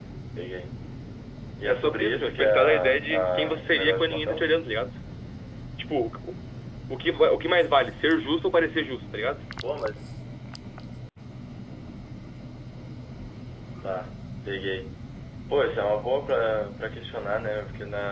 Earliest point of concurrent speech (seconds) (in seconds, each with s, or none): 1.6 s